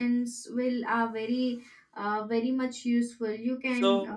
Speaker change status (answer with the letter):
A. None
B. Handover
B